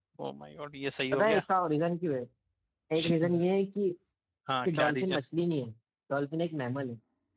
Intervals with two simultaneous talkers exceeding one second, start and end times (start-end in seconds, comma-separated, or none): none